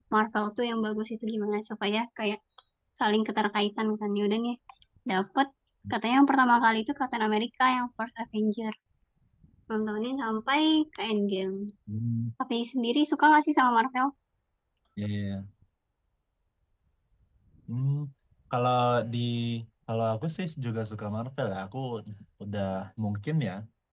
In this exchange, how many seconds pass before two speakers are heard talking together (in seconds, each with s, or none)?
none